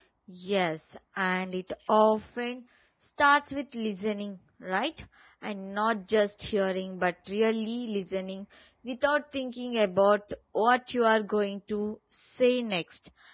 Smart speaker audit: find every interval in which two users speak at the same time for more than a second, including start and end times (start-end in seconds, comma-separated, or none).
none